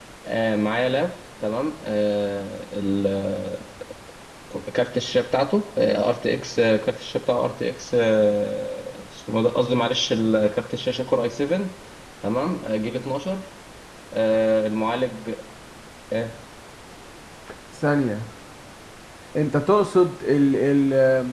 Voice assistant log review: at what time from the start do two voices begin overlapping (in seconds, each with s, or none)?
none